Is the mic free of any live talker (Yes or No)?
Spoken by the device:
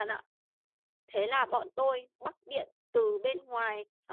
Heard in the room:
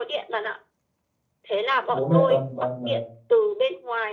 No